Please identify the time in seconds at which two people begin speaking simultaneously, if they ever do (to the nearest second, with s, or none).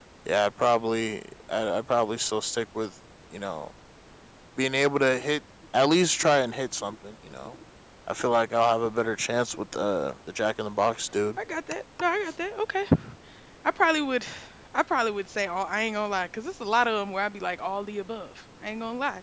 none